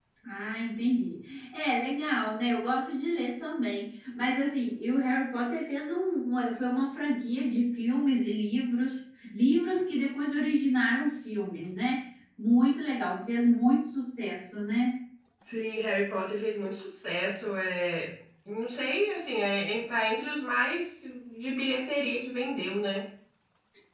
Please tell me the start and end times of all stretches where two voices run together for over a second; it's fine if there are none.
none

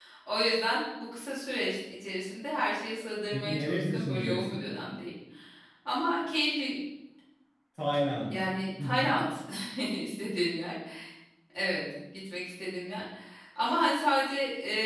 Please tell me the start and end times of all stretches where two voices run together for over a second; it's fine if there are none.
3.3-4.7

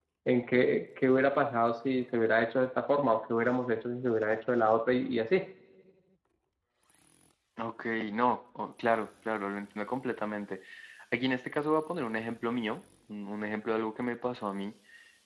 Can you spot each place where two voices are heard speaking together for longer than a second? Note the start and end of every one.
none

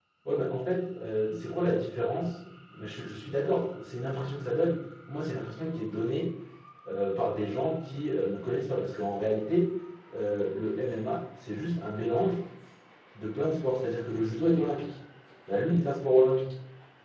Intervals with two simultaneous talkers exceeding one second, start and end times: none

